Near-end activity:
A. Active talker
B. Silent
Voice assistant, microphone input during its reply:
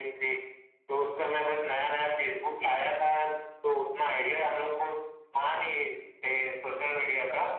B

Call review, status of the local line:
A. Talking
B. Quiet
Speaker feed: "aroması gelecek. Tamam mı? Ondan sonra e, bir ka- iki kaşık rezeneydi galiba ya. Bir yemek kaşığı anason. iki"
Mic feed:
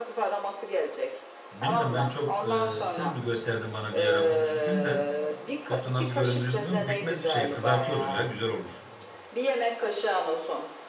A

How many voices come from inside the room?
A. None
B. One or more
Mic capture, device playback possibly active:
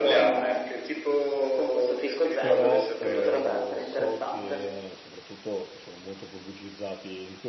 B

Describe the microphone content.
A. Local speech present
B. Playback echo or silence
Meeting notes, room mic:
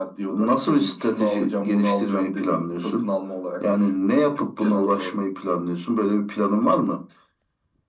B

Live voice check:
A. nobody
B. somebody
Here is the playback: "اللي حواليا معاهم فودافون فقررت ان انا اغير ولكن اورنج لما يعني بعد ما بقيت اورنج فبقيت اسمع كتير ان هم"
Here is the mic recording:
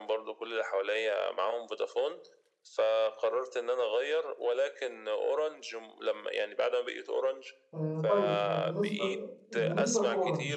B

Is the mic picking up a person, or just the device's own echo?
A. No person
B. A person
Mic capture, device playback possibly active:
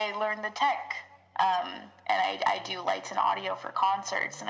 A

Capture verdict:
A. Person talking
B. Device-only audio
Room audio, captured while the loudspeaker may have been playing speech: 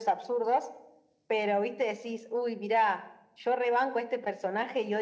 B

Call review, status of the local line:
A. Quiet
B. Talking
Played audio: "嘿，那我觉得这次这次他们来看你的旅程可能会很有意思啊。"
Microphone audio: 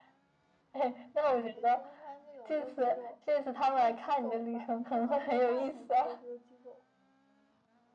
B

